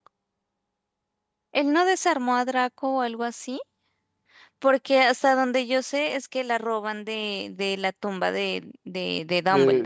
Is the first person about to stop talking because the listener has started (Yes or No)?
Yes